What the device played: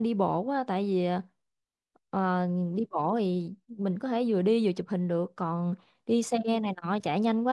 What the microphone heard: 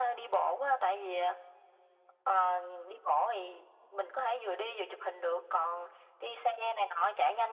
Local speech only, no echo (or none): none